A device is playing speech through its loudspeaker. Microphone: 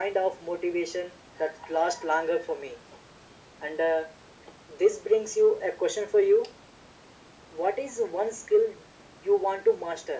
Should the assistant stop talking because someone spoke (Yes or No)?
No